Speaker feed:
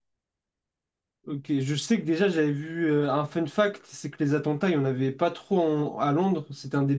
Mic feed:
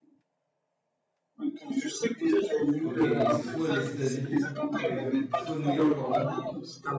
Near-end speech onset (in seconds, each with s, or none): 2.8 s